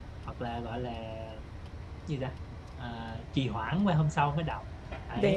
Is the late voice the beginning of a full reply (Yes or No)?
No